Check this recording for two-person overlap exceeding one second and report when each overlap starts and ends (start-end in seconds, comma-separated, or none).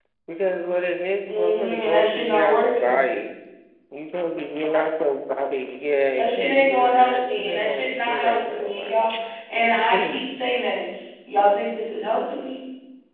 1.3-2.9, 6.2-9.0